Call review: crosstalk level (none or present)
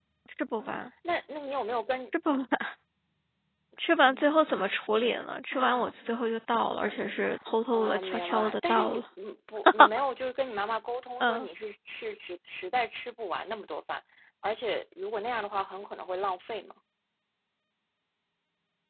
present